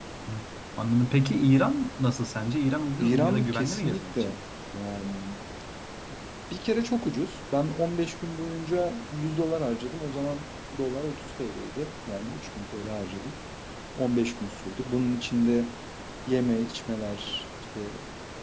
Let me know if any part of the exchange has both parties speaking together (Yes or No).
Yes